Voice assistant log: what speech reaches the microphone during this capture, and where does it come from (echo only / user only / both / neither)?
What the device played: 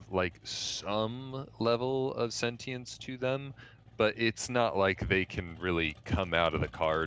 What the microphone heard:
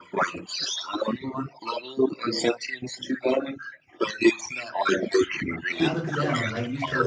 both